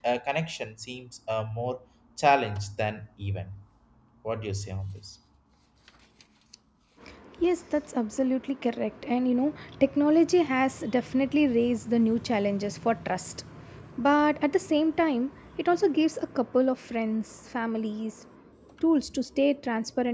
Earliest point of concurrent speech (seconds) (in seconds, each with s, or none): none